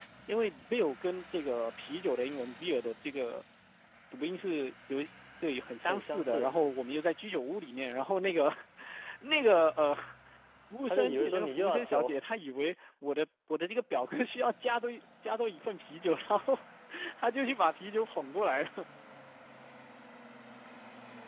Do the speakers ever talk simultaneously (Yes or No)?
Yes